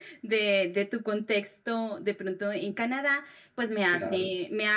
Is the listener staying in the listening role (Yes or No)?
Yes